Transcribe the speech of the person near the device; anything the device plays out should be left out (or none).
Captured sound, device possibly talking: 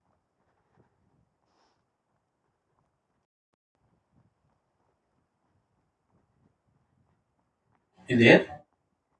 you there